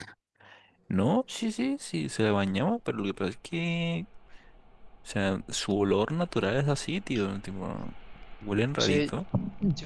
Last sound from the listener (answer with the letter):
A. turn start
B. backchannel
A